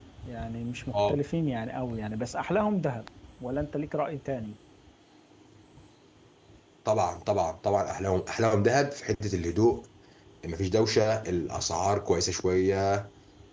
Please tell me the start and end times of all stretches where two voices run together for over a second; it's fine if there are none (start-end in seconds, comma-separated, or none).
none